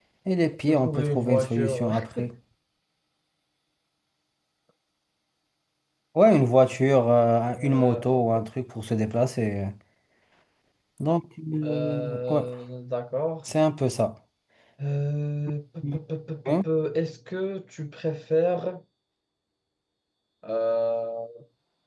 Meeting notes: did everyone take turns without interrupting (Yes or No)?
No